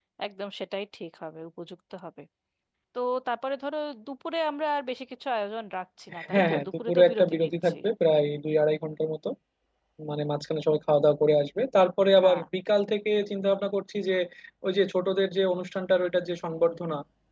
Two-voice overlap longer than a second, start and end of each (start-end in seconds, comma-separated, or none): 6.3-7.8